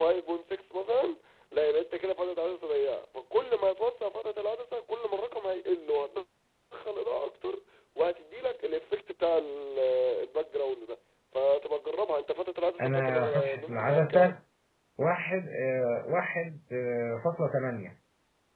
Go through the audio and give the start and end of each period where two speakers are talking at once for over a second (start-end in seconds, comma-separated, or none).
12.8-14.3